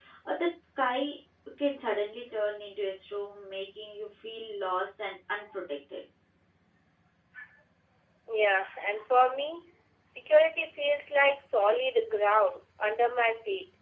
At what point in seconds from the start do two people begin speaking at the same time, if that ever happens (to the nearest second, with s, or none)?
none